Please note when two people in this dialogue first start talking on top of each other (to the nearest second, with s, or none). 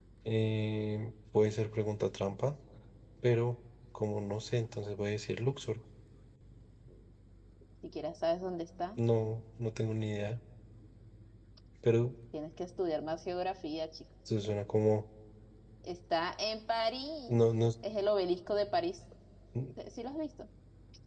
none